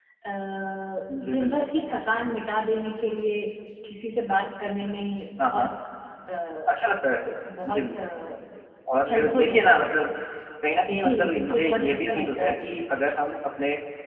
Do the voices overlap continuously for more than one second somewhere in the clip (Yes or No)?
Yes